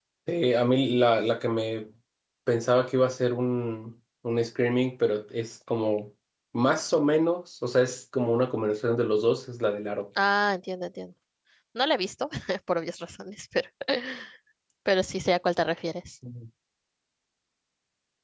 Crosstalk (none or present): none